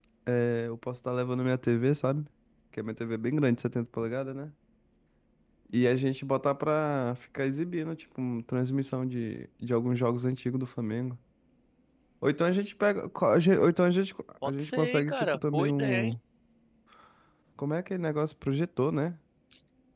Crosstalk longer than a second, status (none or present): present